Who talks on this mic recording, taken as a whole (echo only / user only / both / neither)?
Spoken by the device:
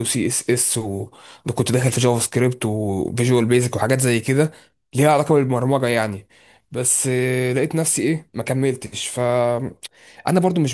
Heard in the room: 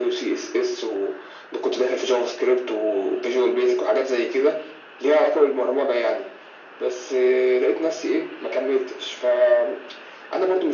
echo only